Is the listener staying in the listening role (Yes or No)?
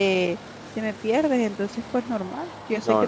Yes